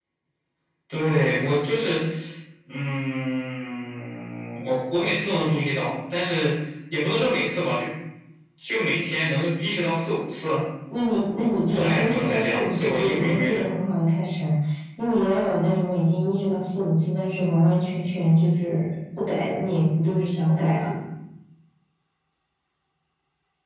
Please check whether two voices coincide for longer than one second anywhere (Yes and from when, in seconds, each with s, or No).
Yes, from 11.7 s